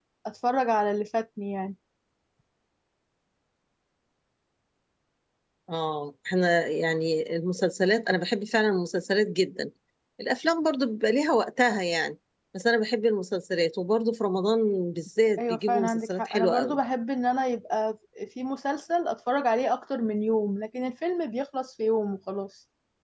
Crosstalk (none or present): present